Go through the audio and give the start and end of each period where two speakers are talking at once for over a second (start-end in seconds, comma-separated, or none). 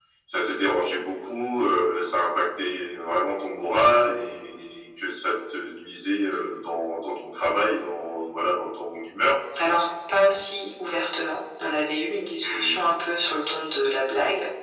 none